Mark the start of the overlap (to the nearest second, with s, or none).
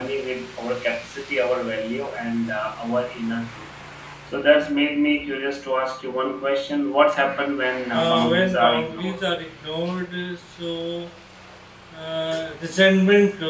8 s